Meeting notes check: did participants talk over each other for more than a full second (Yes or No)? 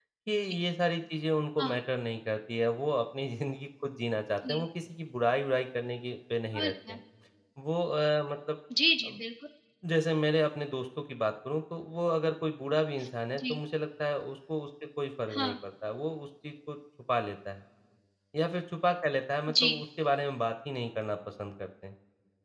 No